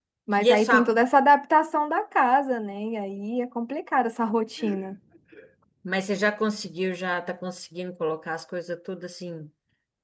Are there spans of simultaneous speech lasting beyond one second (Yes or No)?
No